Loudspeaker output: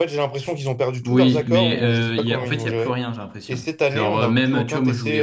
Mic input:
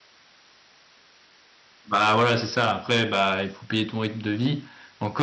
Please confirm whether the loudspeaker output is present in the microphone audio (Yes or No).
No